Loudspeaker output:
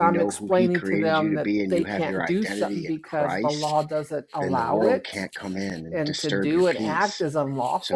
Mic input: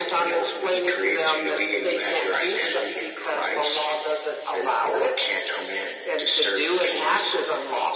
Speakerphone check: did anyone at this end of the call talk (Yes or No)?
No